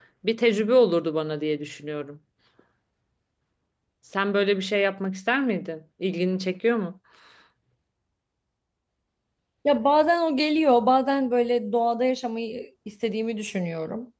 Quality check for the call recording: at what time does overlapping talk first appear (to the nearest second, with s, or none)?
none